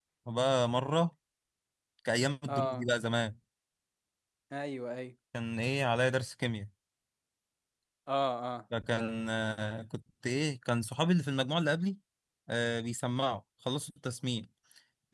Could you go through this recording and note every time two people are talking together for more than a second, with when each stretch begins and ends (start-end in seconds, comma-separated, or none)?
none